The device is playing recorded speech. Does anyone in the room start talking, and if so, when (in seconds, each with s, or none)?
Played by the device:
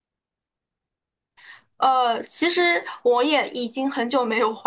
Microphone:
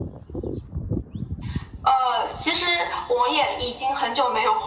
none